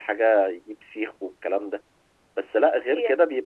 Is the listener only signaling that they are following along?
Yes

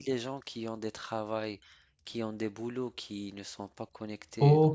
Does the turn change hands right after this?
Yes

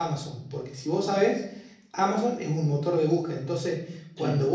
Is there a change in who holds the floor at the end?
No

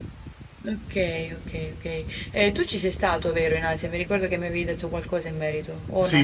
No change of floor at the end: No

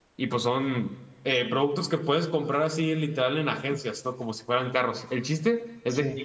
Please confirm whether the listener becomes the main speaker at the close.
No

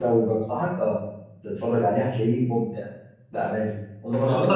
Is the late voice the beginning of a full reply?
Yes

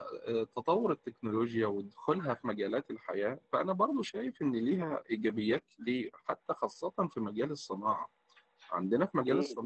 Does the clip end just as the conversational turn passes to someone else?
No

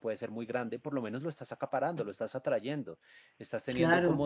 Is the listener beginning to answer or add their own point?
No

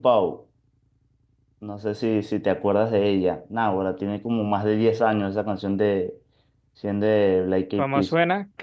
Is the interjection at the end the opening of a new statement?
Yes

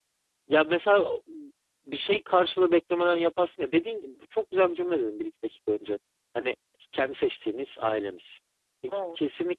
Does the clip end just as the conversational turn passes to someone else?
No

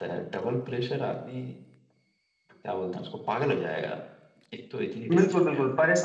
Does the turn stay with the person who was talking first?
No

